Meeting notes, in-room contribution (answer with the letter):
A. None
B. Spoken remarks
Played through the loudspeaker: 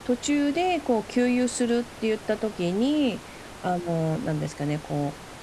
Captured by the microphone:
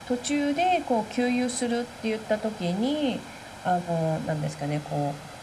A